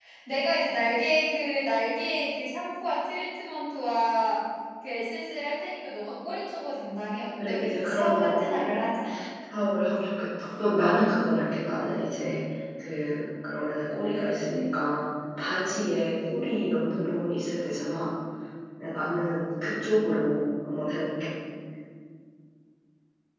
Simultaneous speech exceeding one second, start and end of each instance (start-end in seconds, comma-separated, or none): 7.5-8.8